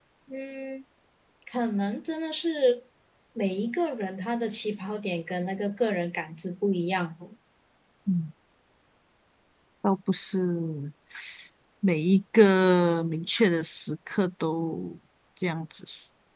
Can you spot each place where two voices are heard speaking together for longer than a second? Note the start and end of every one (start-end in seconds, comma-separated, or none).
none